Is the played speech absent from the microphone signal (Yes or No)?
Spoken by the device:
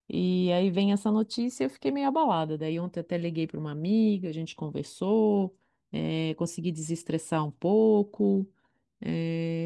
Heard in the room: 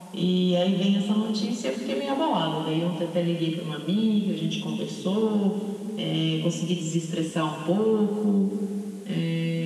No